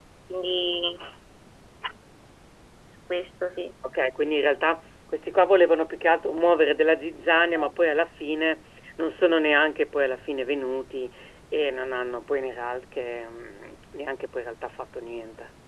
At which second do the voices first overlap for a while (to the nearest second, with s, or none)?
none